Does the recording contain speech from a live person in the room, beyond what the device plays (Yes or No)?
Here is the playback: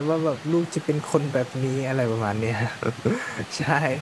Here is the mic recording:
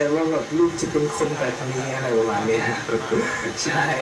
Yes